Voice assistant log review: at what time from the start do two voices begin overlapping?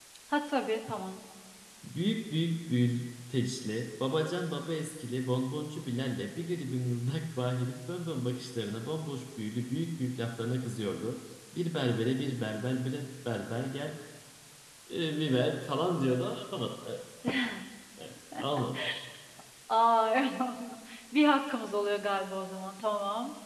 none

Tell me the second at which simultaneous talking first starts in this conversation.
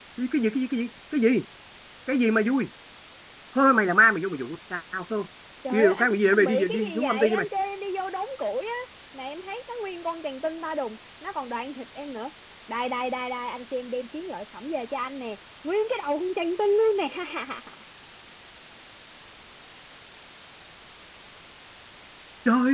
5.7 s

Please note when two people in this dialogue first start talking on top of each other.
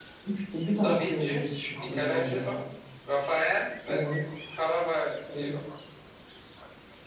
0.8 s

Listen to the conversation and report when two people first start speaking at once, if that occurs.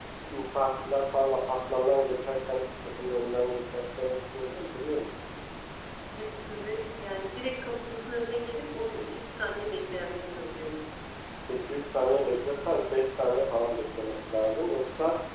none

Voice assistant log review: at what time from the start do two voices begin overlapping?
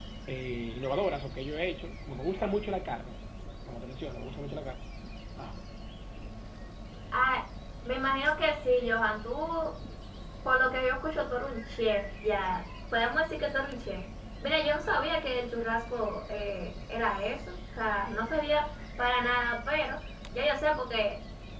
none

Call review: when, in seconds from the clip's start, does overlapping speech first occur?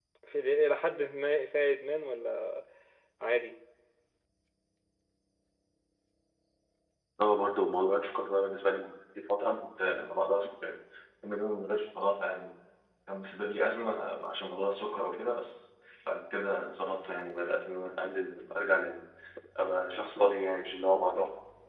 none

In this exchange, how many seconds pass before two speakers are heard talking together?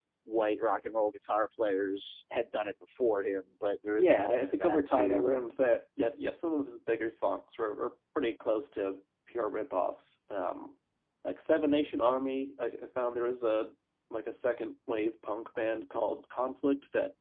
4.0 s

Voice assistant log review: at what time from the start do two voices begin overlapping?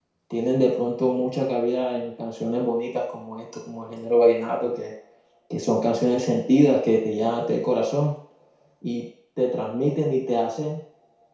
none

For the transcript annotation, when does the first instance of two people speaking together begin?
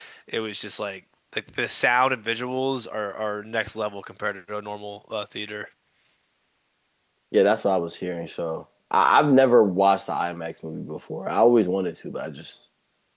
none

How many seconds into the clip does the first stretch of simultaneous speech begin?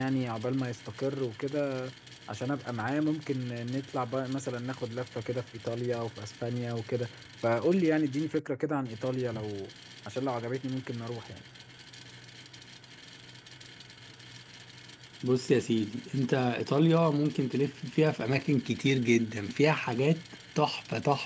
none

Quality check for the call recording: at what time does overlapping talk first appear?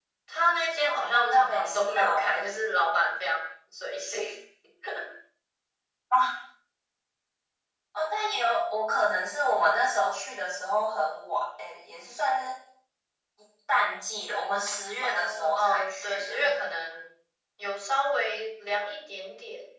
0.8 s

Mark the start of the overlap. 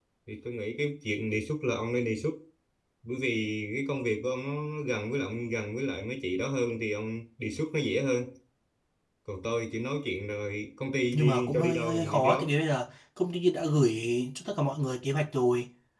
11.1 s

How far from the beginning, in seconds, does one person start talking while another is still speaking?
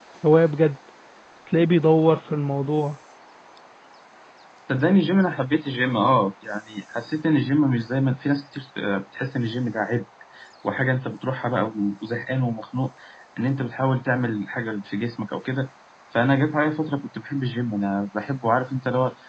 none

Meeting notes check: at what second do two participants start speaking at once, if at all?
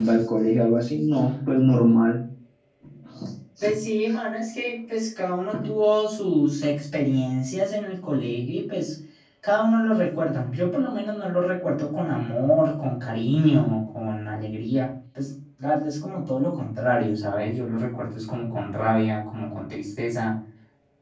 none

